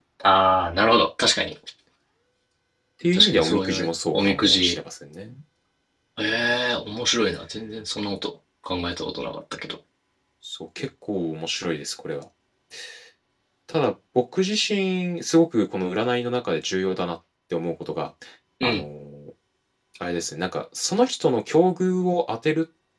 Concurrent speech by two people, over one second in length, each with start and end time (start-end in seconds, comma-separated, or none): 3.1-4.8